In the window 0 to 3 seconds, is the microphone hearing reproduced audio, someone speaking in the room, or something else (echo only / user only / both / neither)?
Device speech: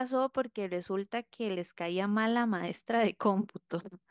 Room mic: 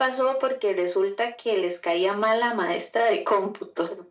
echo only